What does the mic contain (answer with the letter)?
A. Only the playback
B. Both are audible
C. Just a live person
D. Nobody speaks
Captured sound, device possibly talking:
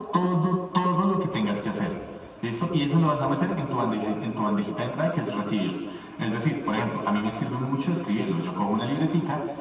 A